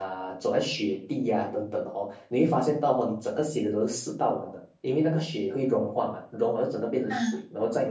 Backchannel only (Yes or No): Yes